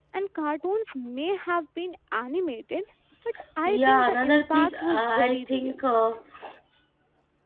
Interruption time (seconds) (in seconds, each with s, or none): 3.6 s